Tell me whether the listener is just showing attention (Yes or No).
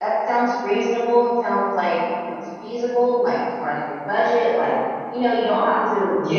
Yes